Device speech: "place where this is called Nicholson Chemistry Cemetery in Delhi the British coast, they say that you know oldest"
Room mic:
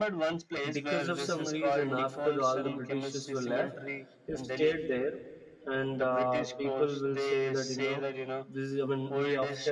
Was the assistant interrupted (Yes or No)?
Yes